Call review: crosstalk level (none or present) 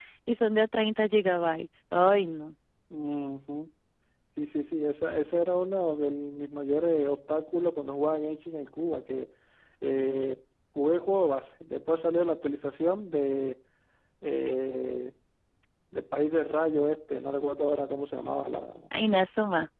none